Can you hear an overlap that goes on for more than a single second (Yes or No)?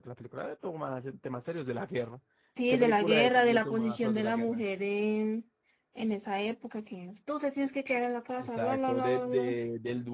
Yes